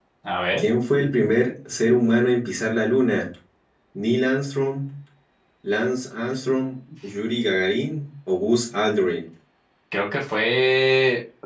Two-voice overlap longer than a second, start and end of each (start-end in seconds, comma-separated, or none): none